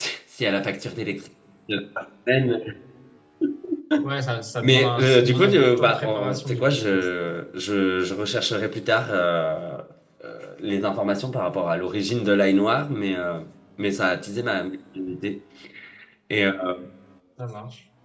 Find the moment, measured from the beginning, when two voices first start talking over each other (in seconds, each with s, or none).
4.6 s